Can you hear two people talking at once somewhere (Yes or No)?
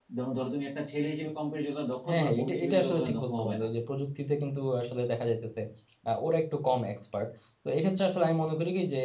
Yes